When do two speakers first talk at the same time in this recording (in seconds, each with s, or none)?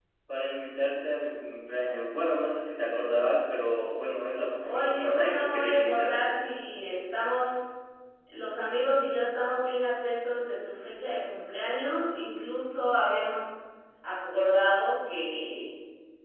4.6 s